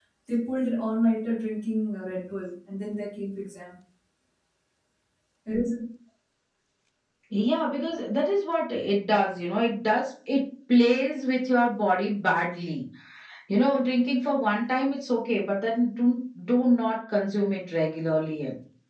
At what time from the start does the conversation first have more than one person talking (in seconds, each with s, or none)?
none